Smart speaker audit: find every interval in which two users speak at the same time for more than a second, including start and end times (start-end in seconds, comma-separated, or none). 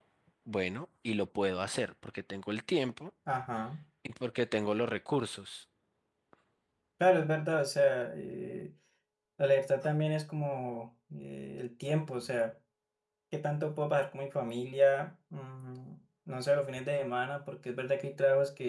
none